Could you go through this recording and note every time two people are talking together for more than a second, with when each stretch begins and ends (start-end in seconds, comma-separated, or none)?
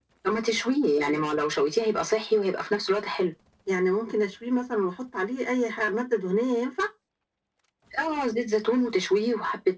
none